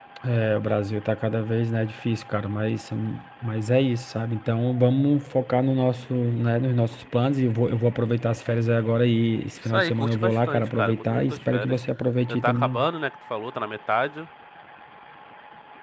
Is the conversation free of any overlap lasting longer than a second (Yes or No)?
No